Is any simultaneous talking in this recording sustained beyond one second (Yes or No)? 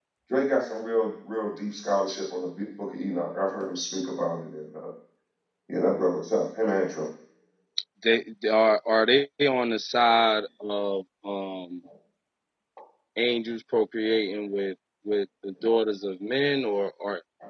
No